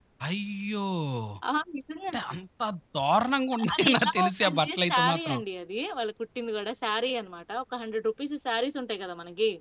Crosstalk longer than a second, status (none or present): present